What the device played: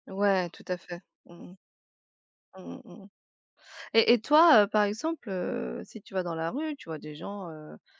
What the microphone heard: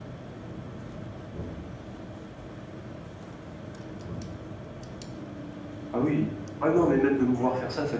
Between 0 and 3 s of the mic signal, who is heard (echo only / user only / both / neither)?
neither